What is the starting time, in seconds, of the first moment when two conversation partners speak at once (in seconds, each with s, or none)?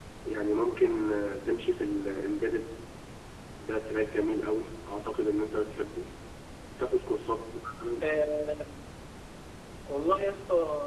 none